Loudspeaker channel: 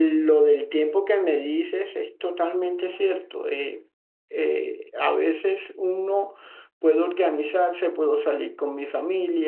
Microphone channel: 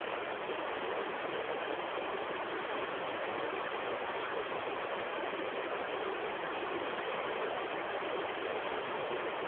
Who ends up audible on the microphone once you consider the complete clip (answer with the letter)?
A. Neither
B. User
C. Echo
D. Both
A